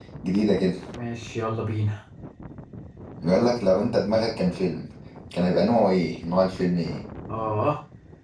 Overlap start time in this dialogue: none

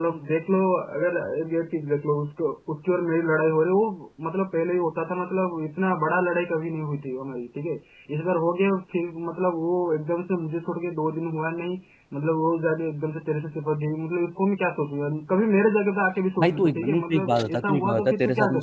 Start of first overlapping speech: 16 s

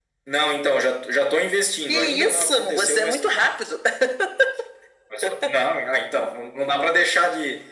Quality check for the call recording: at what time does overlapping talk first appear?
2 s

